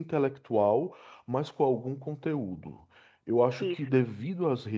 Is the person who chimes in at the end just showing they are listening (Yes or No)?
Yes